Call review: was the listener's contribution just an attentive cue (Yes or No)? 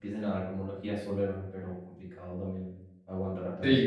No